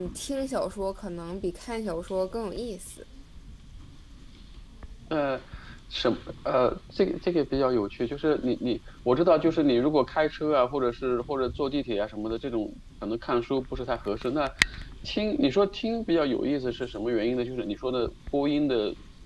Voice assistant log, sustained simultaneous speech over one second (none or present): none